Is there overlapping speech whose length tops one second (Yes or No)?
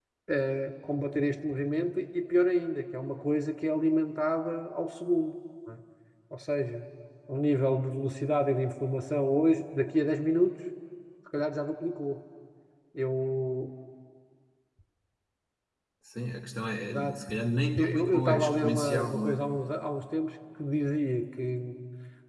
Yes